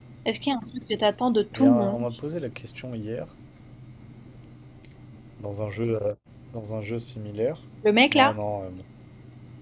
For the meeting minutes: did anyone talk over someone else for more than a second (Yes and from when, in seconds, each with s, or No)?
No